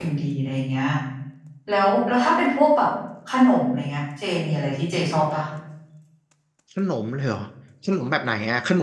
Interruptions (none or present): none